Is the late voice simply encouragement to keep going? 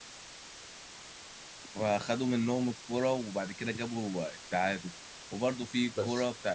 Yes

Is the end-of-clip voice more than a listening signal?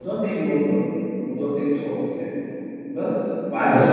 Yes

